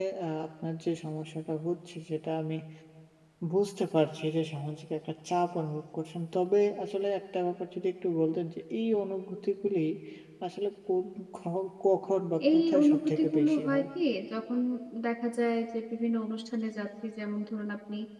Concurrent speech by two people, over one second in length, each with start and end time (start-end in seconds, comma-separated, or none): 12.5-13.8